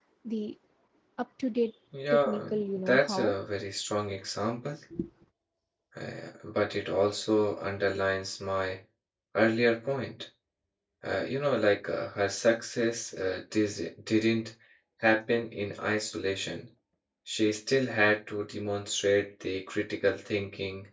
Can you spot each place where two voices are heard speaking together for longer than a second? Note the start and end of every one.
2.1-3.4

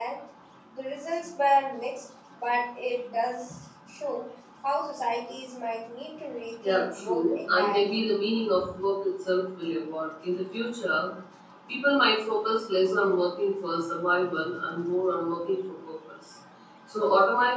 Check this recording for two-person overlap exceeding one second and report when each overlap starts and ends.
6.6-8.1

